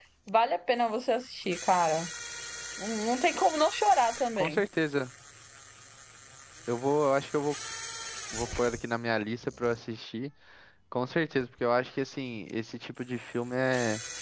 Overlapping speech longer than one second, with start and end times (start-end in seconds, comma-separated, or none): none